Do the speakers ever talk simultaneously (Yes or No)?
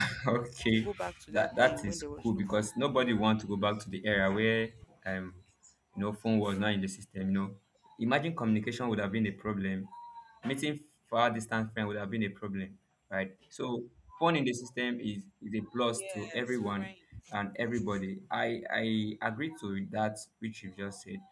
Yes